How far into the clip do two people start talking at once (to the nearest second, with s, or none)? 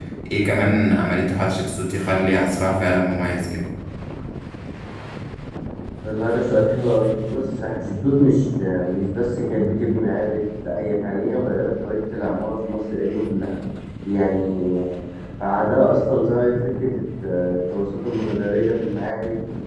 none